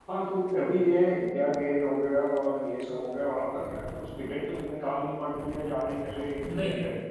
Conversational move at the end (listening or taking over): listening